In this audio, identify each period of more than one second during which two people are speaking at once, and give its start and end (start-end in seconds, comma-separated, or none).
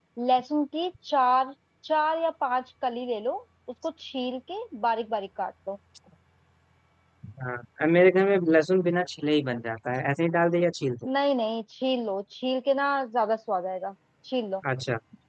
none